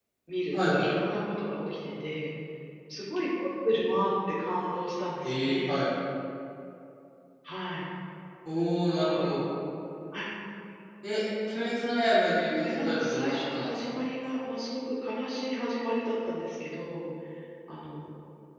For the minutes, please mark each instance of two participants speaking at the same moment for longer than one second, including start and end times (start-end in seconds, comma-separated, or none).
12.6-14.0